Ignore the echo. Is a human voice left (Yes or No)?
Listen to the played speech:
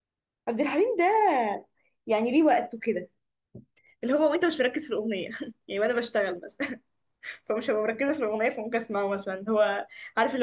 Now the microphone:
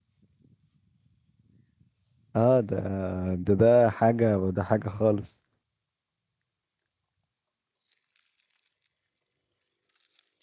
Yes